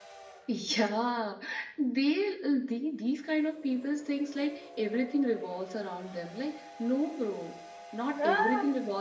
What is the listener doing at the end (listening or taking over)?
listening